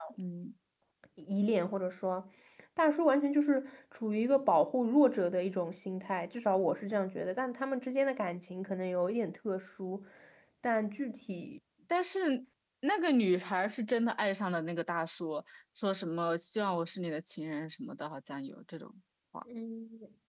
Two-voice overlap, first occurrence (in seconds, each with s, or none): none